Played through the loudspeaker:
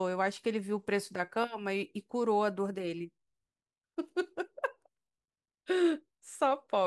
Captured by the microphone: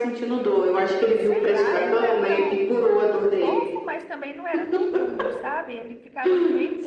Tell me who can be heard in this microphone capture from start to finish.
both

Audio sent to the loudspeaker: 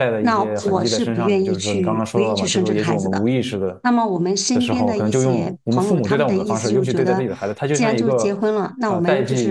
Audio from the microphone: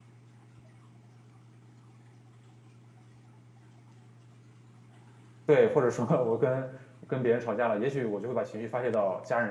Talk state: user only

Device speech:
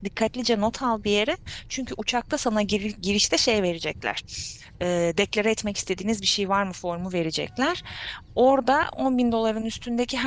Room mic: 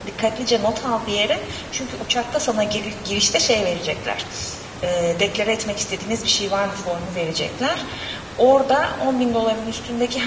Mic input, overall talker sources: echo only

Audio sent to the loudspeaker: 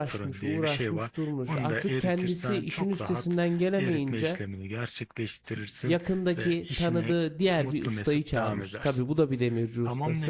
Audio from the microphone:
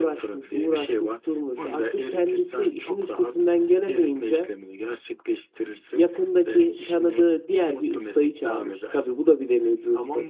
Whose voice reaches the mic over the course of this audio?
echo only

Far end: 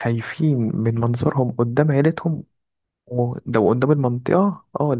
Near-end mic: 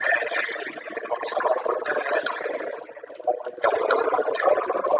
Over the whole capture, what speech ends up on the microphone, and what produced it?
echo only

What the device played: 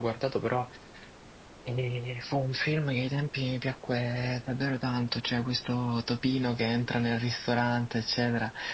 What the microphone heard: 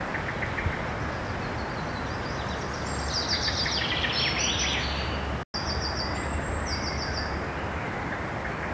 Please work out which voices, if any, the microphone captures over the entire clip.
neither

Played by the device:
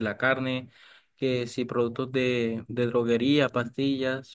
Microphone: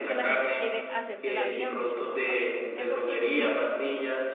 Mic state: both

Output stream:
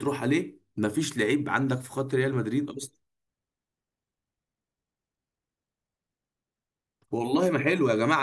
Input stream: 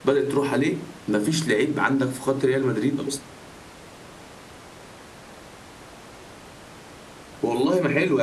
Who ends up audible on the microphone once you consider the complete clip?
echo only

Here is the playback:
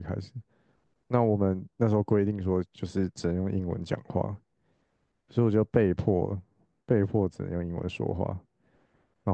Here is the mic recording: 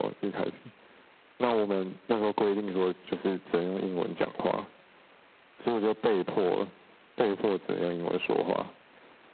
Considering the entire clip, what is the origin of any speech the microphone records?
echo only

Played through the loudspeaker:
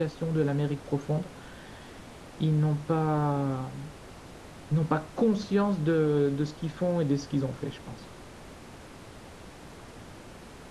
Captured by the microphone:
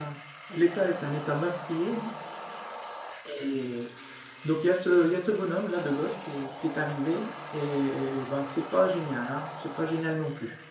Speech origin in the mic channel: user only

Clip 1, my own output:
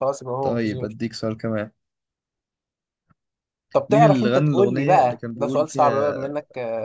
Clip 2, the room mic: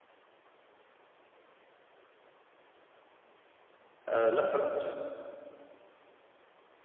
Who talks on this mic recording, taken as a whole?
user only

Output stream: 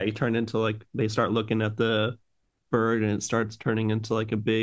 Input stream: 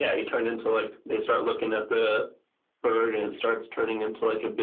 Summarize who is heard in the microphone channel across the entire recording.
echo only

